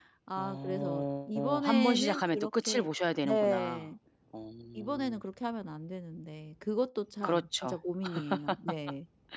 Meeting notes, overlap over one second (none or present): present